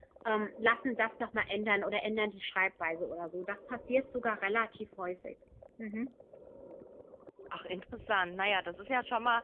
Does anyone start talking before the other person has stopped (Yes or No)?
No